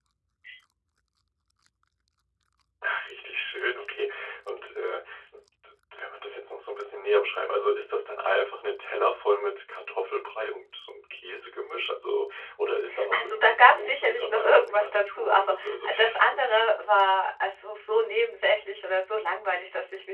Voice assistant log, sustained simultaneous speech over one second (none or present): present